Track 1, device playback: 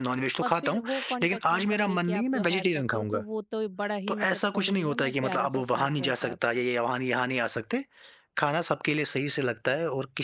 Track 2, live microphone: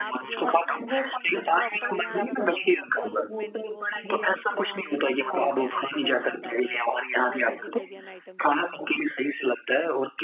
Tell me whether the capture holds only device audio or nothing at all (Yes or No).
No